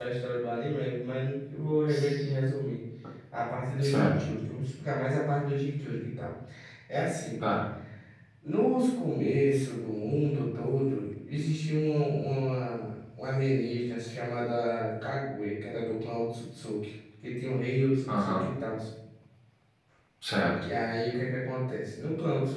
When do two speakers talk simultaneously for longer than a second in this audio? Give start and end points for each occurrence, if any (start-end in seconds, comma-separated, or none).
none